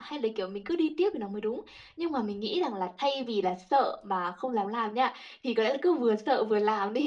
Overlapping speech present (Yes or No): No